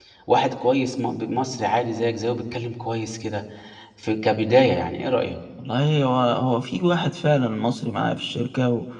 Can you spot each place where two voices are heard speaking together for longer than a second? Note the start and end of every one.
none

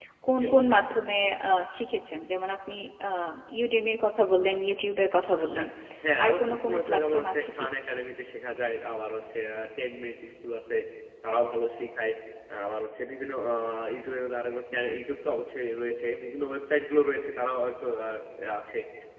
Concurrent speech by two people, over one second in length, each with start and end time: 6.2-7.7

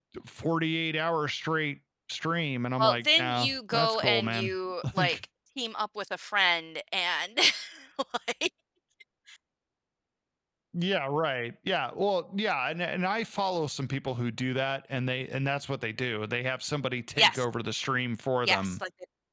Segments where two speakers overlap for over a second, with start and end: 2.8-4.5

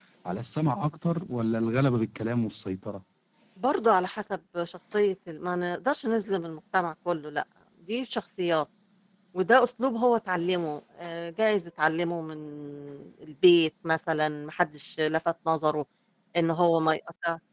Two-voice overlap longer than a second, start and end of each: none

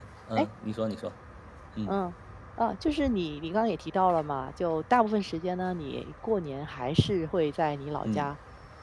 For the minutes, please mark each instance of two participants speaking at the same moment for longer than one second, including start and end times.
none

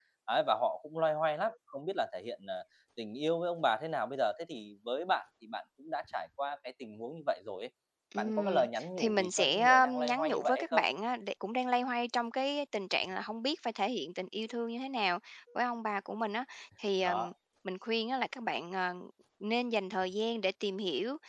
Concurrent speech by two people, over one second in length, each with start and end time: 8.2-10.8

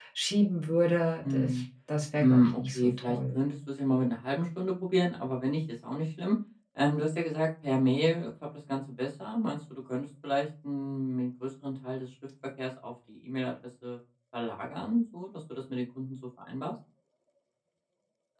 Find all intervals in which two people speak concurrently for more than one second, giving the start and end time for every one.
2.2-3.5

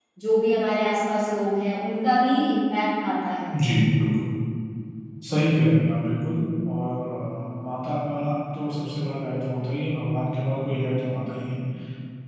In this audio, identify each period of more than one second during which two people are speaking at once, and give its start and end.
none

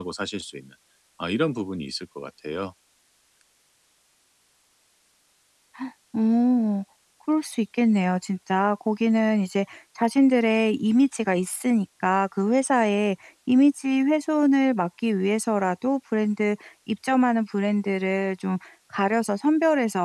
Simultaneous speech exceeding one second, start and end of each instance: none

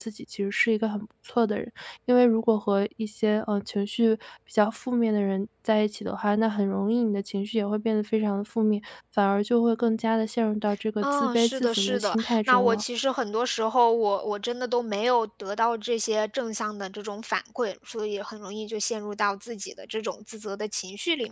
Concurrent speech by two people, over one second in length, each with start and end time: 11.0-12.8

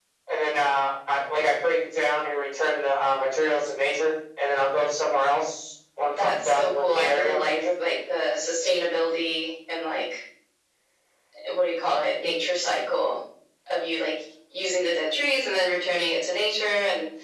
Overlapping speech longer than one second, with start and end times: 6.2-7.5

